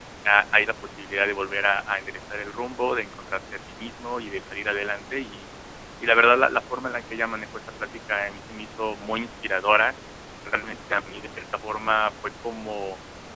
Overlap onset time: none

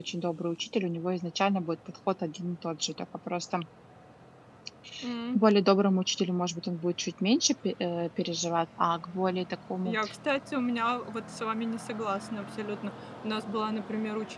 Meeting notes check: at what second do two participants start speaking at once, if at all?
none

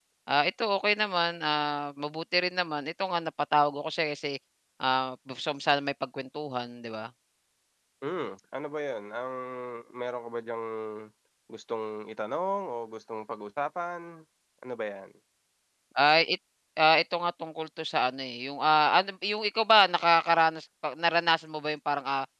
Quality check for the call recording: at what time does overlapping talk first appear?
none

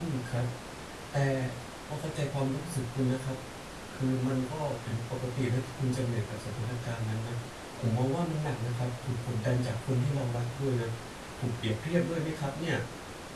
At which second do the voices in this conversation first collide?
none

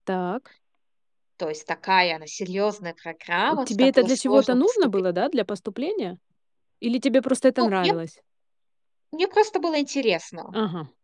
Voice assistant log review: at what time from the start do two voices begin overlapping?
3.5 s

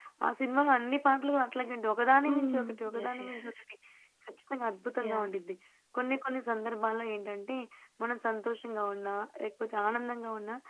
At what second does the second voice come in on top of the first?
2.2 s

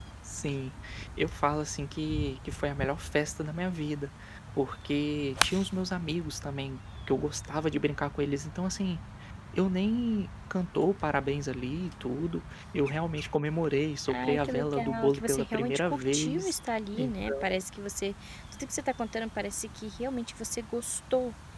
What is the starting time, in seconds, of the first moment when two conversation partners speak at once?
14.1 s

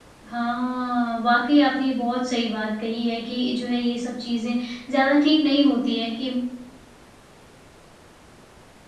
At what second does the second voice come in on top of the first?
none

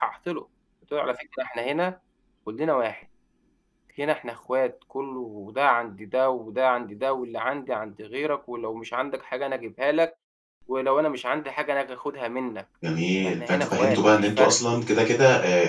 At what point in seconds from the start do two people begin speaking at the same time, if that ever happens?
13.2 s

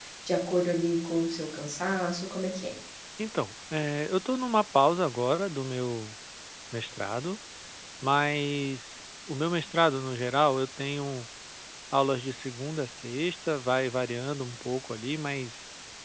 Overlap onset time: none

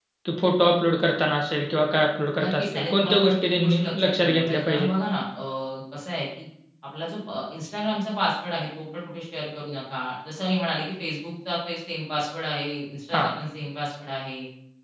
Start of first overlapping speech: 2.4 s

